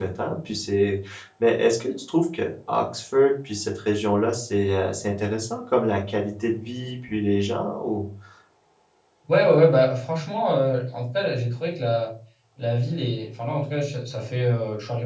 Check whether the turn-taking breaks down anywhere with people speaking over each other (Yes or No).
No